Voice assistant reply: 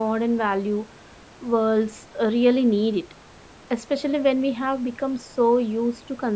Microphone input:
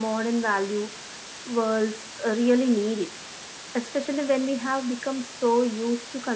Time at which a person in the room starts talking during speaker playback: none

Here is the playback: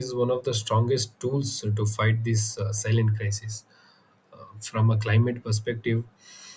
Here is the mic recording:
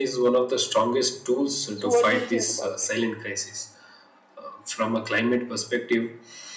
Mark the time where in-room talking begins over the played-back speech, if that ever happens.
2 s

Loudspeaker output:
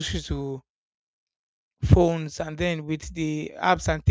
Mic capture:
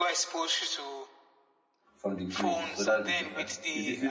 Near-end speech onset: 2 s

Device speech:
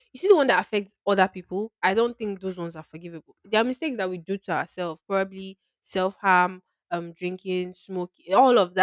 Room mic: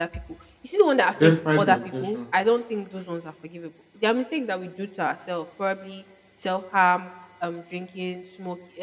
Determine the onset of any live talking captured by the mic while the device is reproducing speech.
1 s

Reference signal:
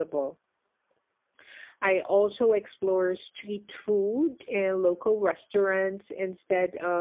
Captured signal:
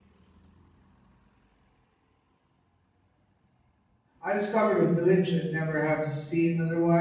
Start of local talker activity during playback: 4 s

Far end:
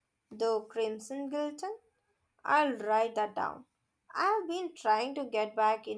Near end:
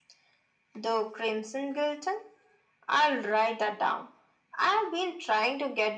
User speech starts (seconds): none

